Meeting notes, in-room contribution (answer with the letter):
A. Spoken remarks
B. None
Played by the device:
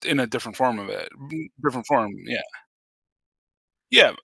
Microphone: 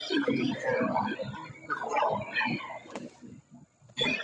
B